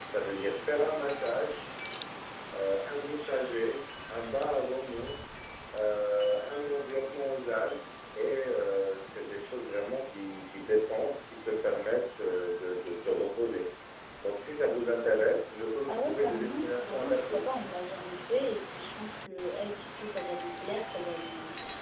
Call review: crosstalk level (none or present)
present